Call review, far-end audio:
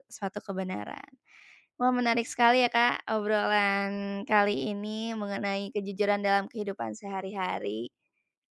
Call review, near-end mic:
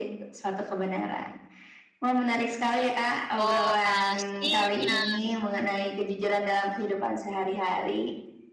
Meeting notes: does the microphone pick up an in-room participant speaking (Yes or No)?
Yes